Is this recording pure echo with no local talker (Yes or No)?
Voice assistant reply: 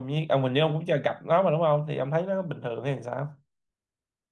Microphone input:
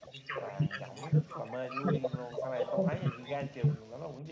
No